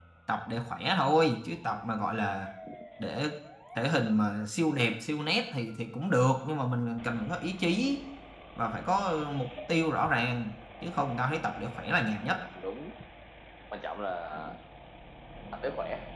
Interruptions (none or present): none